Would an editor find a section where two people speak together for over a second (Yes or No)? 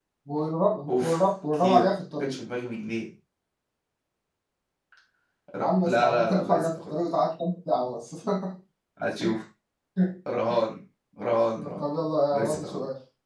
Yes